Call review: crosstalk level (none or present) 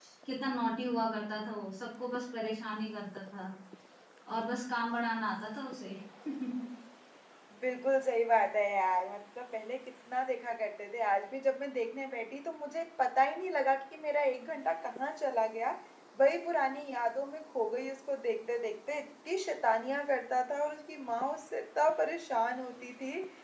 none